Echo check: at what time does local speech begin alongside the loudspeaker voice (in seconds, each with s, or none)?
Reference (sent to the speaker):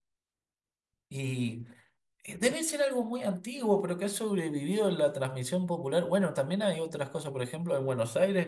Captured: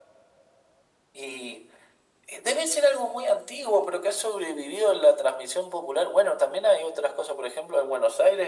none